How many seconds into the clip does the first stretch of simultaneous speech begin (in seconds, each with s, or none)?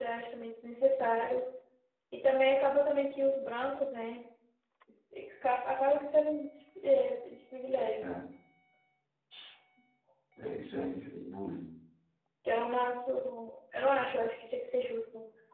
none